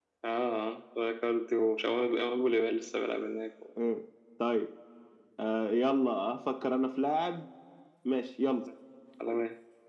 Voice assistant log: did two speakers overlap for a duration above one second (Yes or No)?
No